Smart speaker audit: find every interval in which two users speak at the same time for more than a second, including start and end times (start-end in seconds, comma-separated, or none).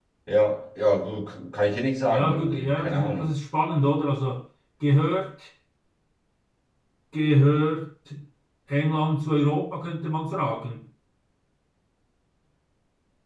2.1-3.3